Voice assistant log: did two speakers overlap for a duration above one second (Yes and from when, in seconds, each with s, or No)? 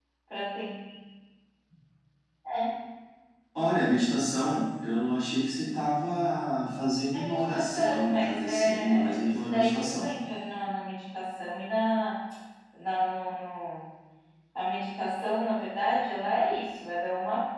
Yes, from 7.1 s